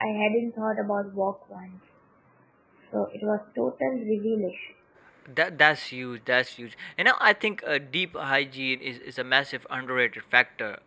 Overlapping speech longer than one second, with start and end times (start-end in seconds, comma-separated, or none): none